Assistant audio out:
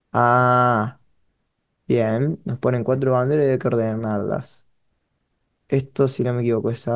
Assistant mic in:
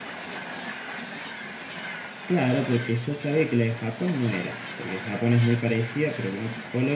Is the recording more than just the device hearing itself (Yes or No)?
Yes